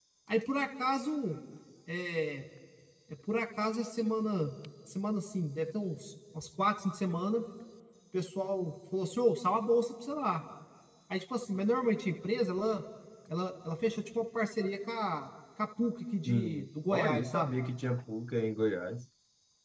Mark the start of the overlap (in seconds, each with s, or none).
16.3 s